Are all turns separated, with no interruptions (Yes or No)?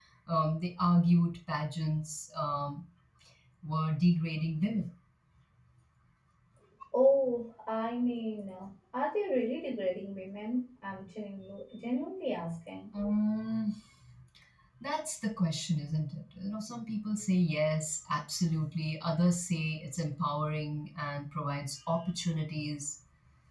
Yes